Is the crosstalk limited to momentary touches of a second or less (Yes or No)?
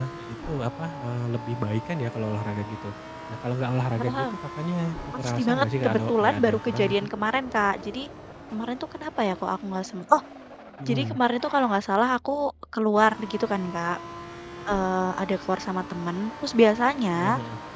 No